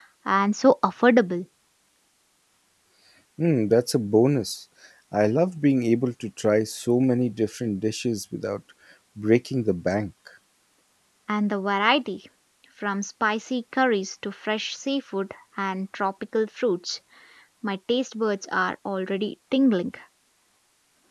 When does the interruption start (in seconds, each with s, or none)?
none